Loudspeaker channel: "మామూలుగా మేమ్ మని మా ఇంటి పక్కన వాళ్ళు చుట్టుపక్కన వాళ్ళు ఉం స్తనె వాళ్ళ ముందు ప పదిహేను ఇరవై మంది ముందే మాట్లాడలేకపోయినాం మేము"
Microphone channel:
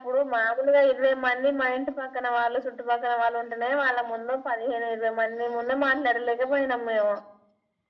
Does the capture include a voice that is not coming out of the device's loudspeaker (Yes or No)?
No